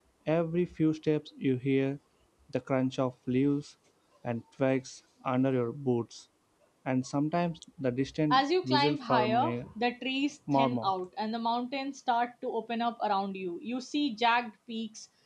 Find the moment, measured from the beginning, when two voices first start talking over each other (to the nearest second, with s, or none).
8 s